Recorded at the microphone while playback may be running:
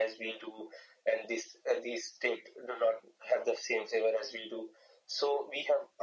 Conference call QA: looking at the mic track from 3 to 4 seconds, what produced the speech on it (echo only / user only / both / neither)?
echo only